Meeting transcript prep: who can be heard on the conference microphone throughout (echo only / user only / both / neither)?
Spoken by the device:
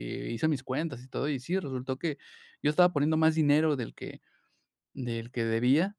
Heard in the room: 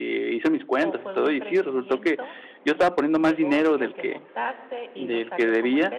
both